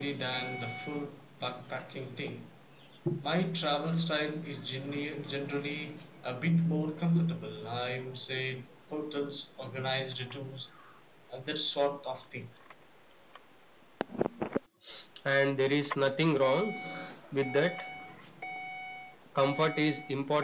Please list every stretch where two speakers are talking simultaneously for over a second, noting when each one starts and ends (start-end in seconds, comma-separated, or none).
none